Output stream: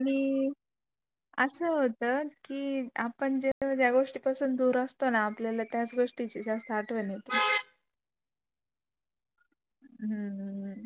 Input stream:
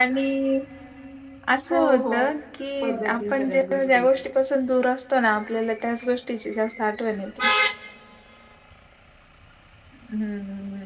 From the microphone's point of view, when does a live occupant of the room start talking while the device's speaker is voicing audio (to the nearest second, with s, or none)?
2 s